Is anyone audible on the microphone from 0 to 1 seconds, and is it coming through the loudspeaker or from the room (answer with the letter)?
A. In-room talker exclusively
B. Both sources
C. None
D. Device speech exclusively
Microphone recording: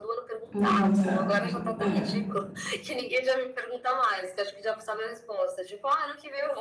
B